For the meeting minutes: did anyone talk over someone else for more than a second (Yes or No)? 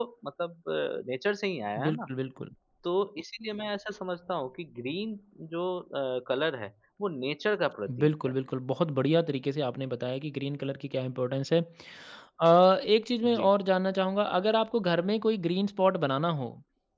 No